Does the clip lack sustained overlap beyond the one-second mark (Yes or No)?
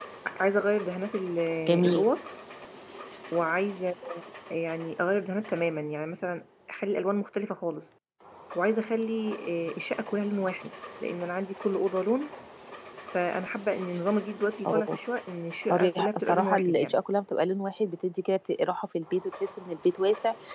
No